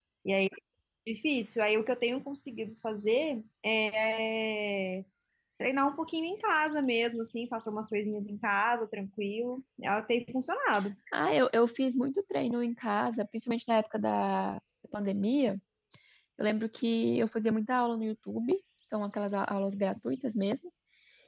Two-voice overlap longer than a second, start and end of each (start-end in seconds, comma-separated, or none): none